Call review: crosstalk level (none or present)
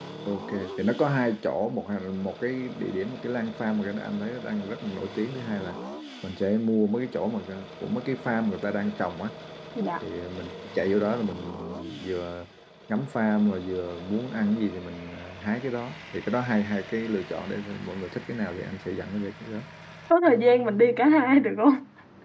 none